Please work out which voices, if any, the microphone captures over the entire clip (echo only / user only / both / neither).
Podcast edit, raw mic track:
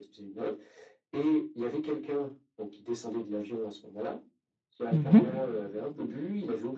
both